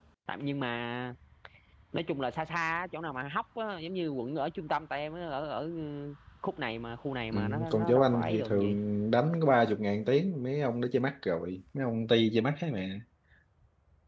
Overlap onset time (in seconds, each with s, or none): 7.3 s